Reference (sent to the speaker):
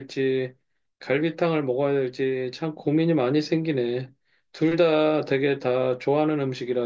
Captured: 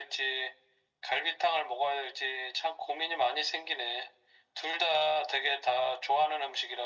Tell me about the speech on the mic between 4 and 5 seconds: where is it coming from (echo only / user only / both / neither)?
echo only